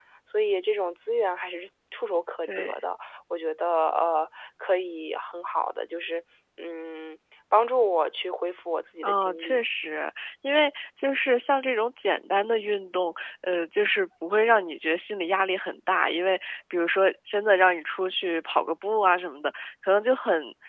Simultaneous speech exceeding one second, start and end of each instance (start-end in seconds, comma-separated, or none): none